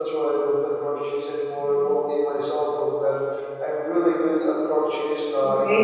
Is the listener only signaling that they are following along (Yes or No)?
No